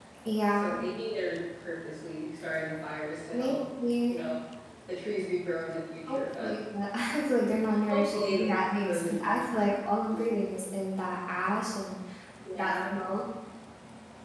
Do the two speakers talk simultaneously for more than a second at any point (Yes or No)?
Yes